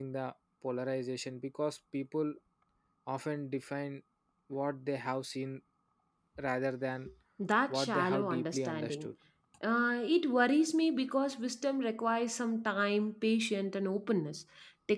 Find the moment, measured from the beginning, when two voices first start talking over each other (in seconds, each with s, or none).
7.7 s